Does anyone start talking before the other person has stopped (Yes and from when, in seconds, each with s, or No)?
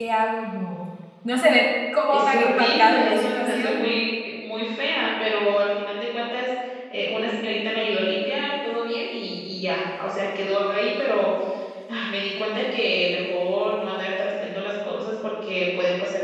Yes, from 2.1 s